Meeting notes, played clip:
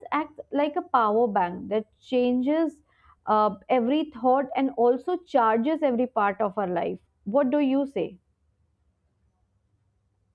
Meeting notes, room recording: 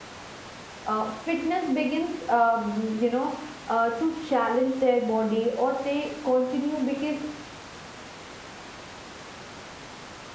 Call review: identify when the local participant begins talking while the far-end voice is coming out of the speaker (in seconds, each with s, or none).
0.9 s